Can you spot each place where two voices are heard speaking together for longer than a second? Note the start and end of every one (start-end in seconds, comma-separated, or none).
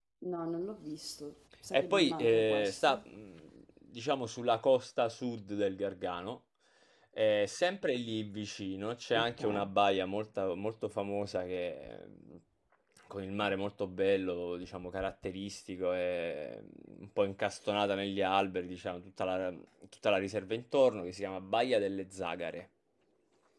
1.7-3.0